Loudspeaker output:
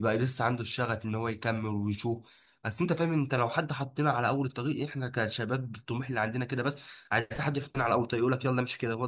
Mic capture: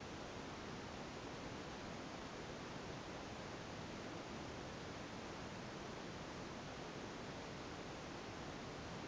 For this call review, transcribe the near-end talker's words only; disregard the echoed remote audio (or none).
none